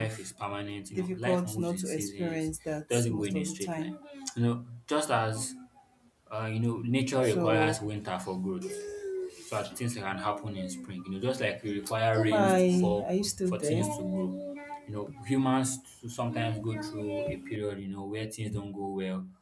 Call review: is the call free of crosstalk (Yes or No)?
No